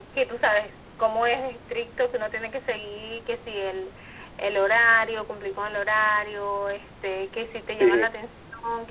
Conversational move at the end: listening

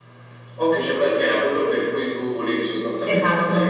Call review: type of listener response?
taking over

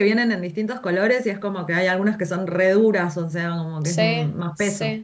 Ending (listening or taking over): taking over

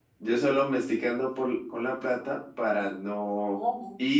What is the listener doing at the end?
listening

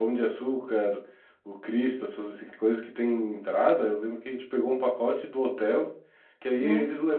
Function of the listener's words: listening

